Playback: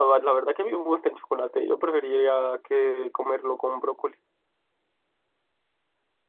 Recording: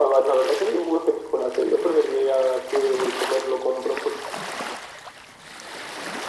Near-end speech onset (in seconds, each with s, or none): none